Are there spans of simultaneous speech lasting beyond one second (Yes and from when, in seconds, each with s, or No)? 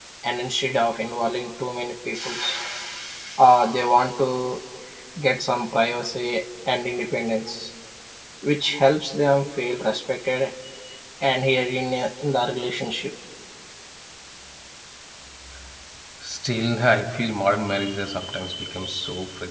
No